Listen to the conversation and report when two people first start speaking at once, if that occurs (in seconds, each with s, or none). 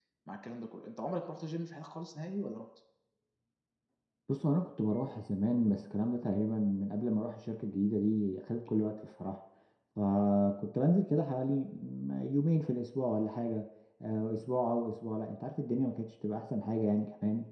none